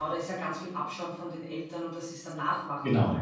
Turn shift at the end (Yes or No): Yes